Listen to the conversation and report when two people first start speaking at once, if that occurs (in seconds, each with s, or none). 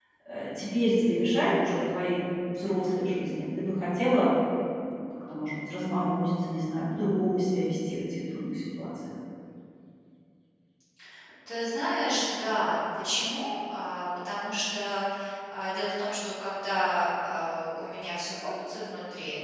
none